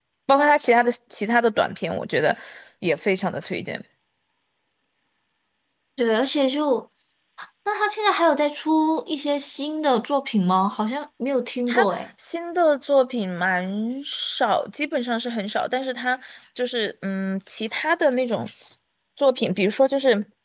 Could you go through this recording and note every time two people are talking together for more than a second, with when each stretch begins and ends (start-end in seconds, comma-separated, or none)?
none